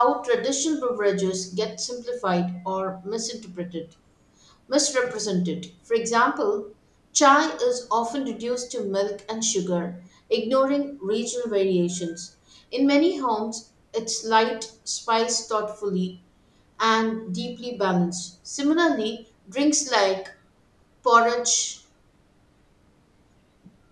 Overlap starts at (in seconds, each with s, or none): none